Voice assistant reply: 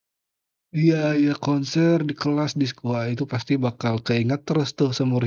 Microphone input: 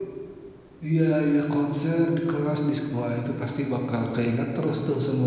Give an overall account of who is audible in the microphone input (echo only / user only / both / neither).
echo only